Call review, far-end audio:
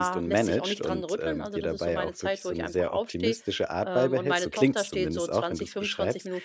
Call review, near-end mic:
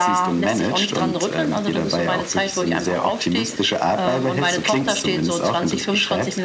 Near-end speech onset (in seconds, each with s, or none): none